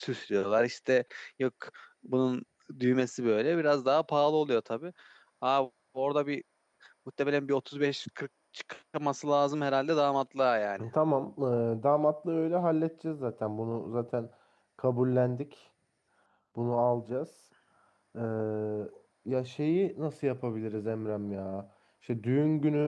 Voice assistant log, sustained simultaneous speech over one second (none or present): none